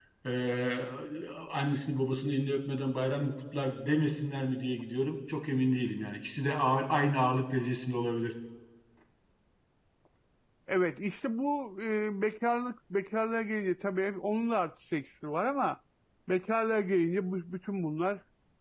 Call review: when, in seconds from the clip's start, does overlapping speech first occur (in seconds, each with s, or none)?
none